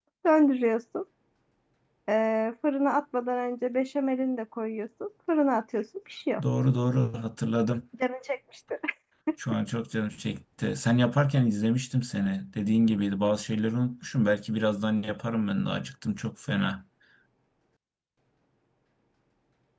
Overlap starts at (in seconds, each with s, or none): none